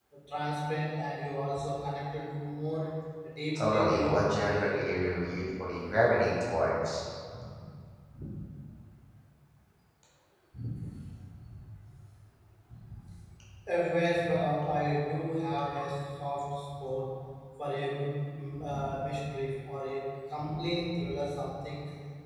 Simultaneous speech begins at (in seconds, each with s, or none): 3.5 s